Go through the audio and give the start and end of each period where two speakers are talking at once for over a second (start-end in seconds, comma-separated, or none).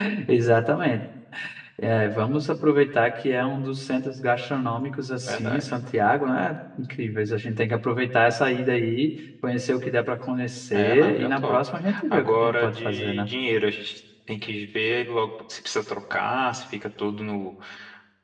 10.7-13.3